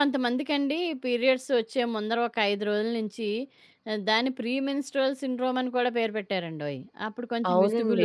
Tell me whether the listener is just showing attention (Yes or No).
Yes